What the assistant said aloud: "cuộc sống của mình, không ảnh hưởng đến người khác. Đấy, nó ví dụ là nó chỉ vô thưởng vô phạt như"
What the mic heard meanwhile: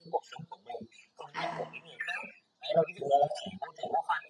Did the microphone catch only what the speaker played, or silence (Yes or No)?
No